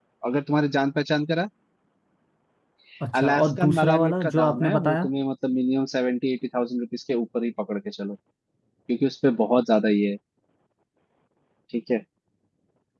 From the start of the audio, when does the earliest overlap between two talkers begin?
3.2 s

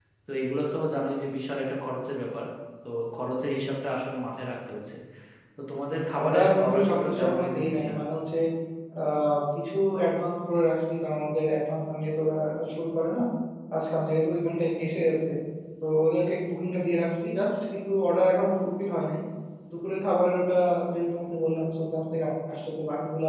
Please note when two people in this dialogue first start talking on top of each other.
6.2 s

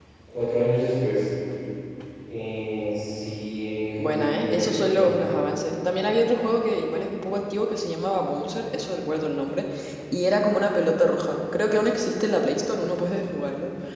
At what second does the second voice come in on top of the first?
4.0 s

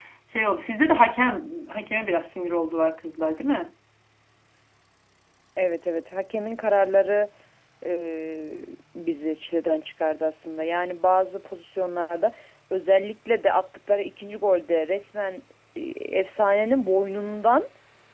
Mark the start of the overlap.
none

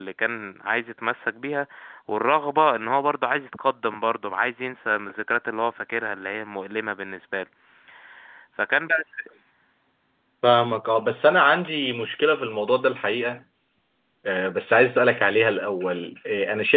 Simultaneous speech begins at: none

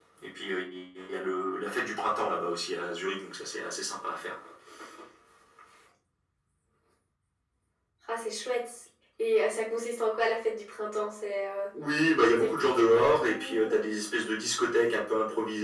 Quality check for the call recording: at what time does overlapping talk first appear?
12.1 s

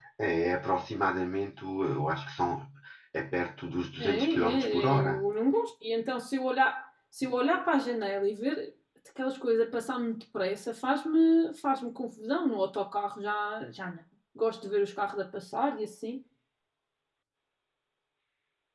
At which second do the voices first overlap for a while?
4.0 s

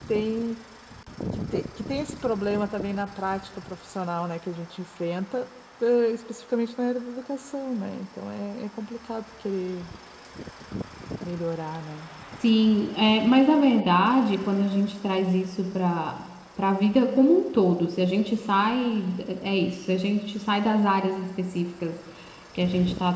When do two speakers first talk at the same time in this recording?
none

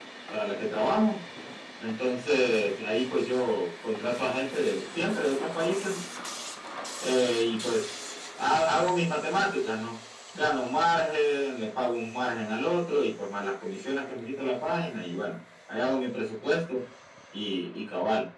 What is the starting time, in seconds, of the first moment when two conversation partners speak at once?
none

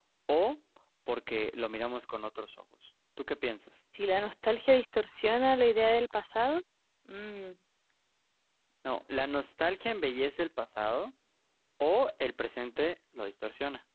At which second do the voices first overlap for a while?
none

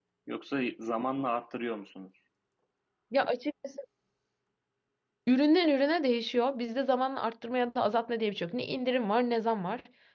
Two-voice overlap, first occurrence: none

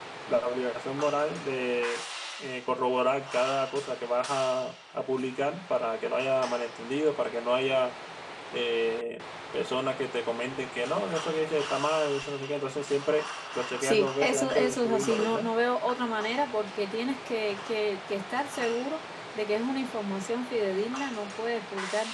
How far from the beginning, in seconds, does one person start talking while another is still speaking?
13.8 s

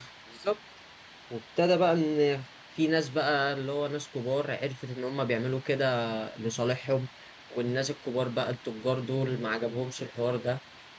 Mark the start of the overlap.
none

